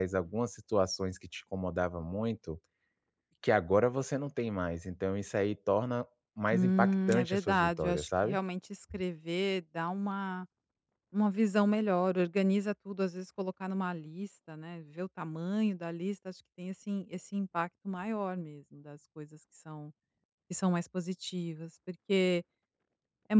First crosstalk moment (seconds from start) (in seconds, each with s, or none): 6.5 s